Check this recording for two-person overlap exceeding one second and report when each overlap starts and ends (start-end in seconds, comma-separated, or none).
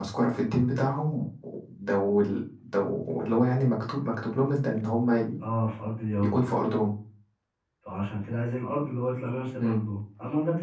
none